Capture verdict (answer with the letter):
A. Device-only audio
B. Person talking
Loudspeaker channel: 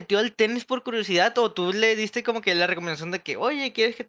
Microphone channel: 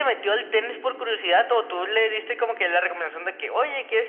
A